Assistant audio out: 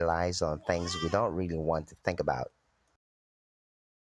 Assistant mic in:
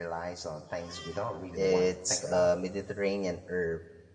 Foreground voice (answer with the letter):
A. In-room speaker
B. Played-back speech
A